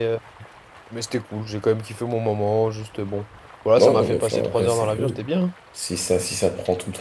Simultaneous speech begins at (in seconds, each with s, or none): 3.8 s